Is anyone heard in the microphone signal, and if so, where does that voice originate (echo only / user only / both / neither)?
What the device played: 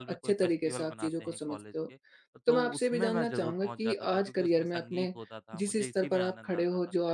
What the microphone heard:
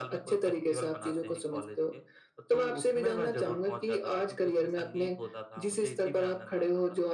echo only